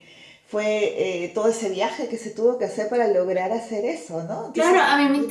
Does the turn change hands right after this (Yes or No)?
Yes